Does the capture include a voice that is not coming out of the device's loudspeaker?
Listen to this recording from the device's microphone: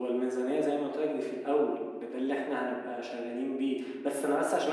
No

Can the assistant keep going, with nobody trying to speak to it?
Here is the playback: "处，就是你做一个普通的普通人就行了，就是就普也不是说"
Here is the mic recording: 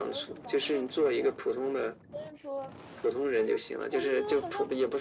No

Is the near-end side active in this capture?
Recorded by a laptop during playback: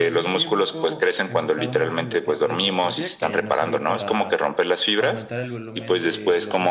Yes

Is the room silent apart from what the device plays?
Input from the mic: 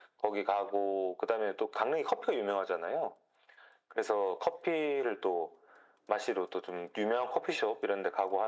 Yes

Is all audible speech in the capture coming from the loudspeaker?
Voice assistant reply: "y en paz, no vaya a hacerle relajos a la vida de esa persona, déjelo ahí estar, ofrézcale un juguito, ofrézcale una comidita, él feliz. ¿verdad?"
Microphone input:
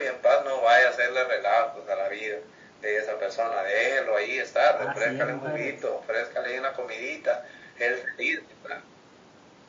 No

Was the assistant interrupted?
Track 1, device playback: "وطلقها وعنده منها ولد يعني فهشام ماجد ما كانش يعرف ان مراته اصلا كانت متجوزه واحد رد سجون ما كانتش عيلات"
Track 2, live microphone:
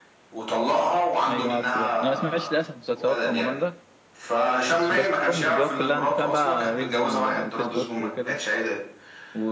Yes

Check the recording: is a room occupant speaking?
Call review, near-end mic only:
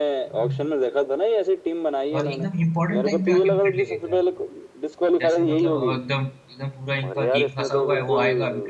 Yes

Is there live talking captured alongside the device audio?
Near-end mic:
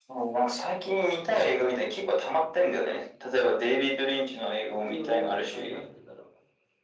Yes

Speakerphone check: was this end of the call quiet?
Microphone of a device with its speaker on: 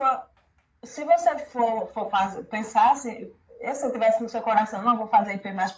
Yes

